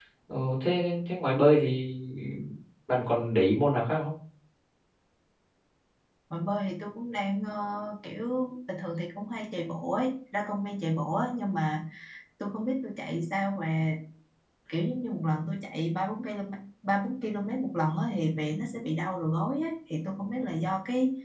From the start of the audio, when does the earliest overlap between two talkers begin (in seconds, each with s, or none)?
none